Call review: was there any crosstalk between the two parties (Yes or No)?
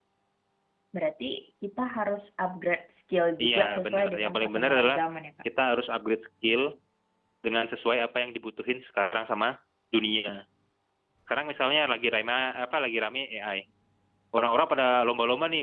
Yes